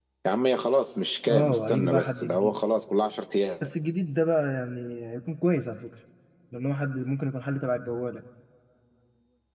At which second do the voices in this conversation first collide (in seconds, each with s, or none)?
1.3 s